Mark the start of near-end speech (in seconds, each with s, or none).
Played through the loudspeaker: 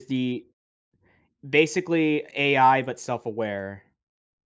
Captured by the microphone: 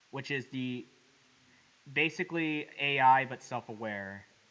none